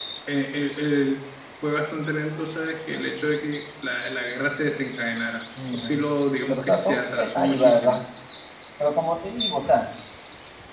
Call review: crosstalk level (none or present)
present